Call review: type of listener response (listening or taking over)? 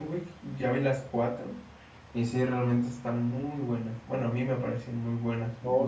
taking over